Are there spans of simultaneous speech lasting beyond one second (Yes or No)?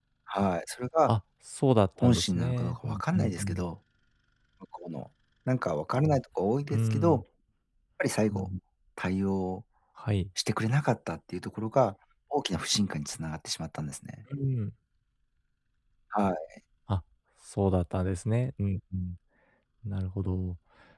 Yes